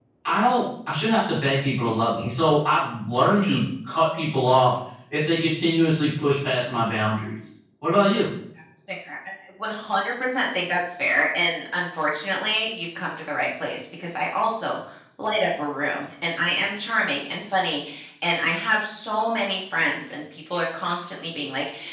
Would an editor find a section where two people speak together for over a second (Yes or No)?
No